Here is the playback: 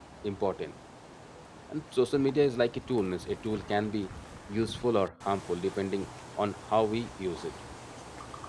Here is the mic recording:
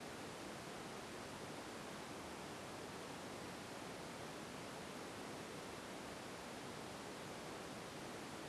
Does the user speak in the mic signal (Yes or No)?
No